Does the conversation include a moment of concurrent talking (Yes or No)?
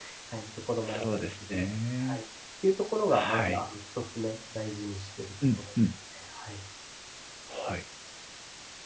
Yes